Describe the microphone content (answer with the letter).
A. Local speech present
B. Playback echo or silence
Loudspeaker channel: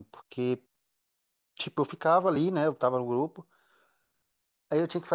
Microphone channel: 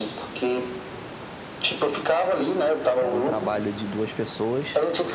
A